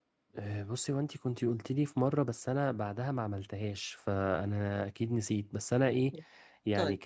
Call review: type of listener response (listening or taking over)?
listening